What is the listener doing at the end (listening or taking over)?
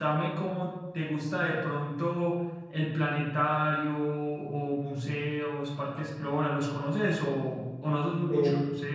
listening